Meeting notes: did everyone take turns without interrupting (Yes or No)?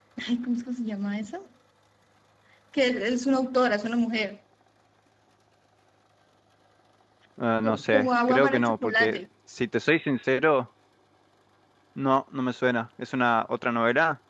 No